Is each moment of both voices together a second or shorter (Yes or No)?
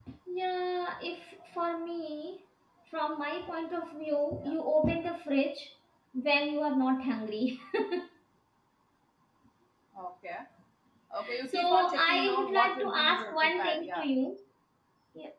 No